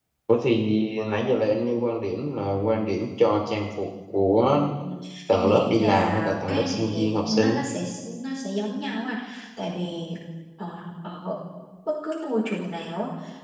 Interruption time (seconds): 5.3 s

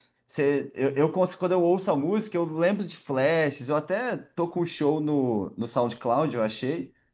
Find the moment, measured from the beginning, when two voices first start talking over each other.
none

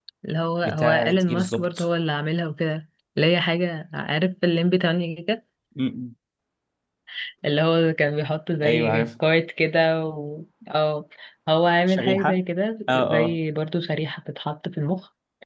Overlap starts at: 0.6 s

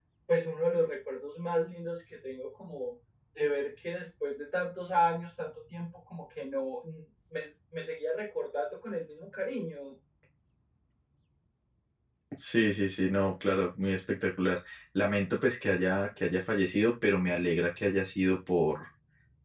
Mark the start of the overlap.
none

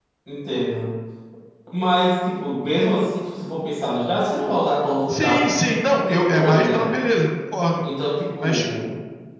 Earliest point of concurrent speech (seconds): 5.1 s

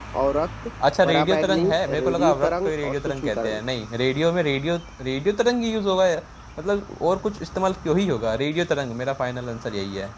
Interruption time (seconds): 1.1 s

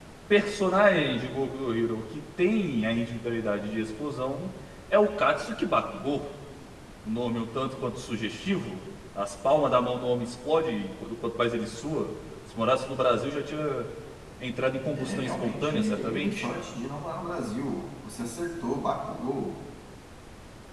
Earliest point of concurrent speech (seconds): 14.9 s

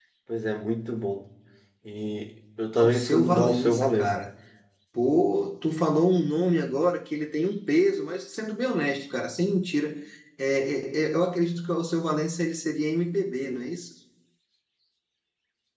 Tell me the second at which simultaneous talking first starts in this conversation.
2.8 s

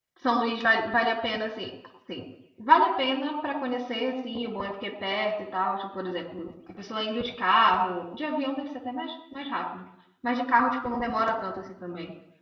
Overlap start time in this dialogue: none

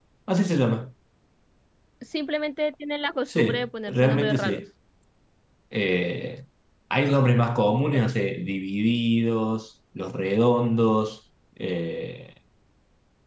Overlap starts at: 3.3 s

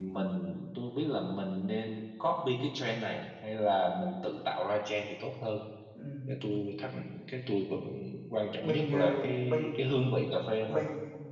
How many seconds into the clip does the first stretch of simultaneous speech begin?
8.5 s

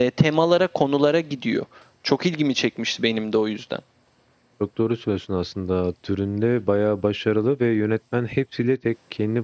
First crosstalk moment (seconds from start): none

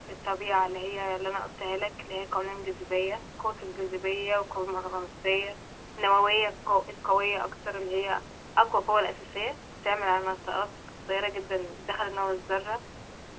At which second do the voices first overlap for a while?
none

